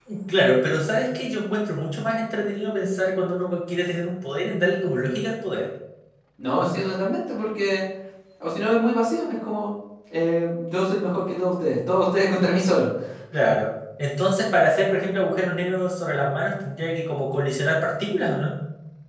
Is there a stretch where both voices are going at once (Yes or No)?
No